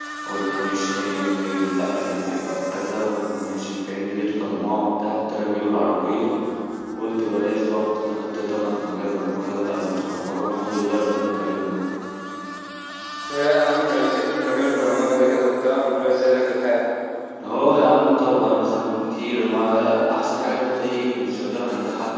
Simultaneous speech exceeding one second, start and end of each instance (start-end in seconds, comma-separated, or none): none